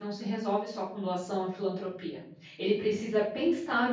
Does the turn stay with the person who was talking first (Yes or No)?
Yes